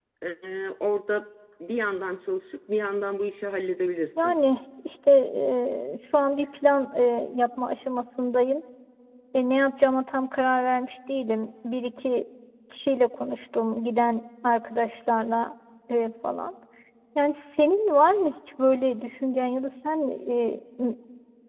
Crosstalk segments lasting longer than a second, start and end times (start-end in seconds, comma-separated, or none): none